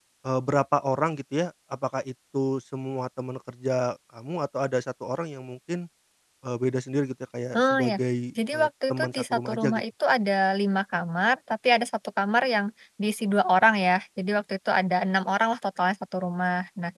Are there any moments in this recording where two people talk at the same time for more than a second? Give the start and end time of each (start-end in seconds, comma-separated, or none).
8.5-9.8